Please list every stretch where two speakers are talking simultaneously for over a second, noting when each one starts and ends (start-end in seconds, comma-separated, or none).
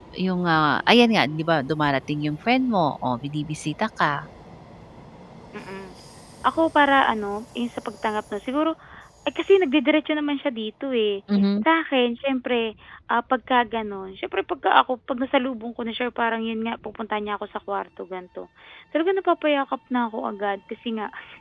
none